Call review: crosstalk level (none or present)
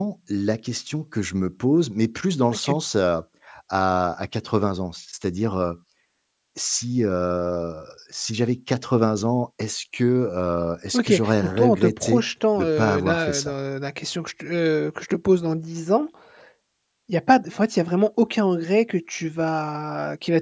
present